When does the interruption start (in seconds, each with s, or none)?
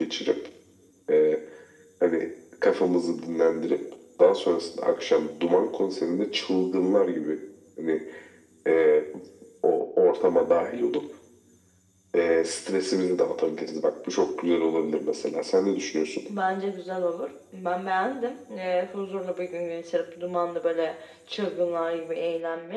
none